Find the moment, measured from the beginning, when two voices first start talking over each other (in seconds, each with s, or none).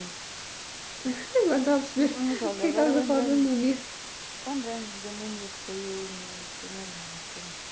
2.0 s